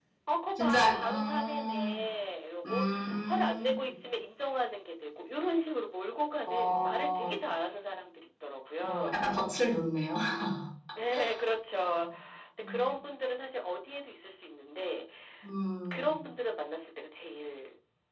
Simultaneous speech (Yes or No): Yes